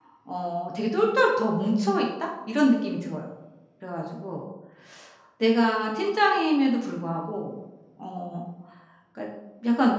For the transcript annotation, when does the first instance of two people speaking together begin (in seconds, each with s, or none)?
none